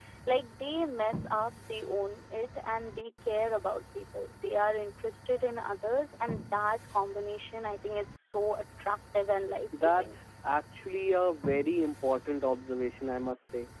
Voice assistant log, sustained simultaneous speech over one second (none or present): none